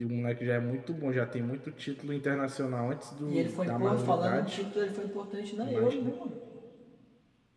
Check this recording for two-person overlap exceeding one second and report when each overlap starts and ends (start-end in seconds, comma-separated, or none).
3.3-4.6